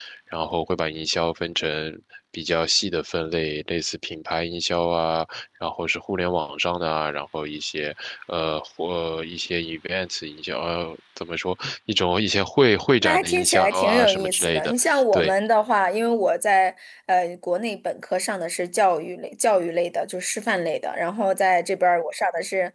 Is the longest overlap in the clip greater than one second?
Yes, from 13.0 s

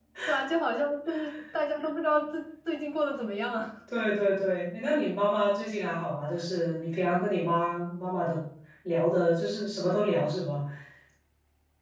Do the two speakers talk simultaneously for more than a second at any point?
No

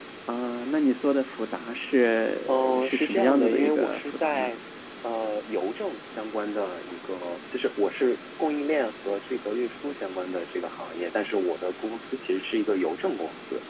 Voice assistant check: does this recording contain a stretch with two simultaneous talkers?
Yes, from 2.5 s

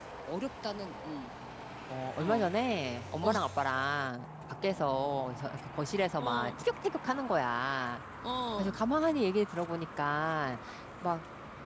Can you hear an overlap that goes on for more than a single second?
No

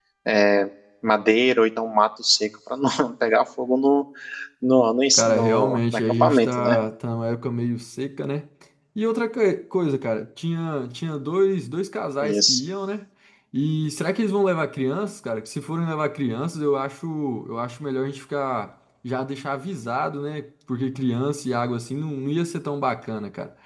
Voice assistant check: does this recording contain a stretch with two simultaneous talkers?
Yes, from 5.1 s

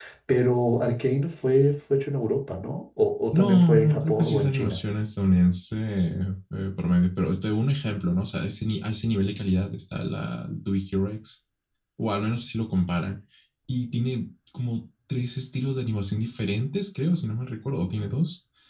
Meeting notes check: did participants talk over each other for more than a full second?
Yes, from 3.3 s

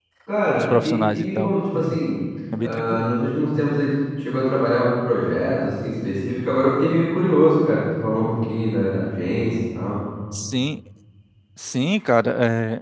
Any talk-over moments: Yes, from 0.6 s

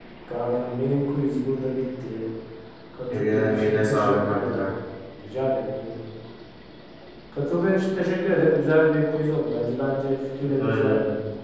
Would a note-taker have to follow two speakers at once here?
Yes, from 3.2 s

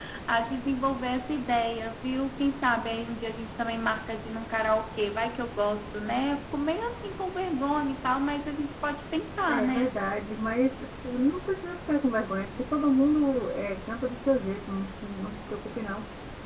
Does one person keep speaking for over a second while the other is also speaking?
No

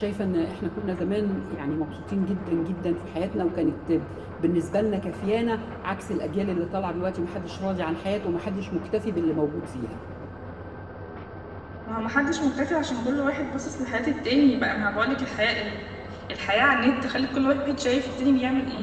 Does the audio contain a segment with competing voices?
No

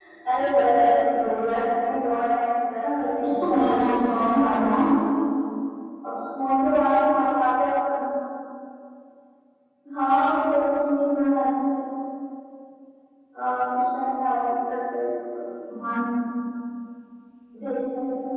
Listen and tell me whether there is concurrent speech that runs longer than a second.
Yes, from 3.2 s

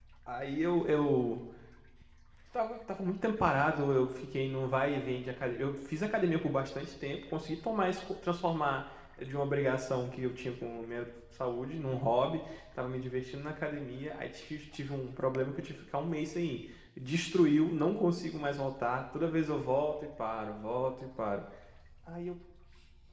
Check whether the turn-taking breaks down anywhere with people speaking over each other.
No

